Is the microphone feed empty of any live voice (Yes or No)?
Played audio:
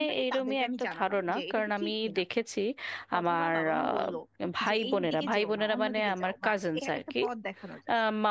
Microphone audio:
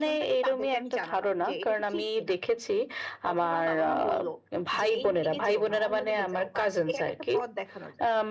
Yes